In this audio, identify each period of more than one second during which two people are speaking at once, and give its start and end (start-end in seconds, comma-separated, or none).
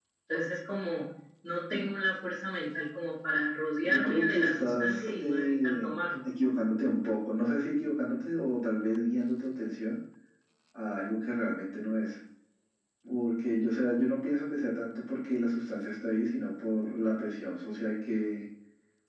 3.9-6.2